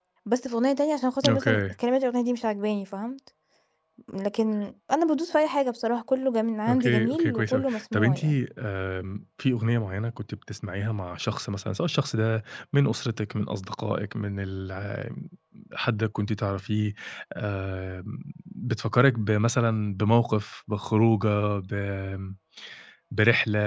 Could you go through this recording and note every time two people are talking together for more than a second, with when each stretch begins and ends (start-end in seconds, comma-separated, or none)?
6.7-8.2